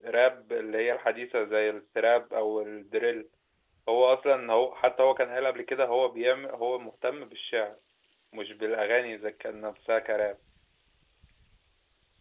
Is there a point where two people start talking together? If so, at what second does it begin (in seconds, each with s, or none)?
none